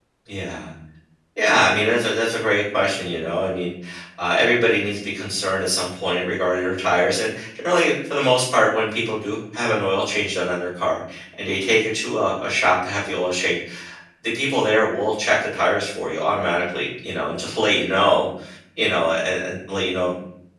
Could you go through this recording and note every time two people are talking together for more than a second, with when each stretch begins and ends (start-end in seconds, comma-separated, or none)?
none